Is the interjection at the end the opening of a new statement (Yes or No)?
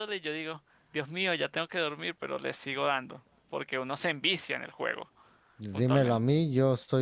Yes